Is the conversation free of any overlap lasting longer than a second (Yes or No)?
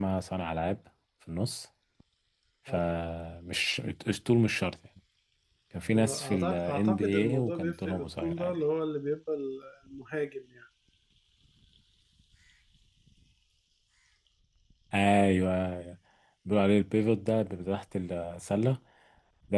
No